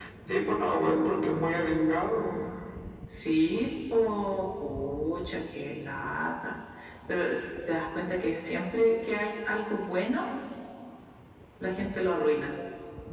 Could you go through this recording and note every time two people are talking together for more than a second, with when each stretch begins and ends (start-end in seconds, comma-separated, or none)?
none